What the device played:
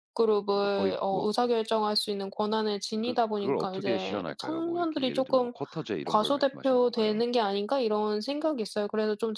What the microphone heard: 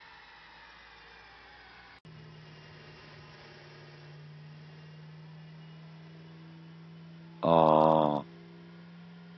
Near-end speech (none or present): present